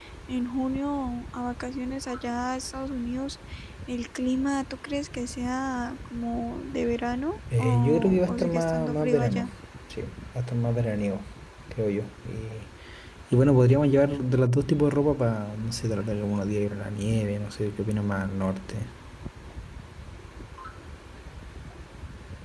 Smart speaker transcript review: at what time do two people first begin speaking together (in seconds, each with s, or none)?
7.5 s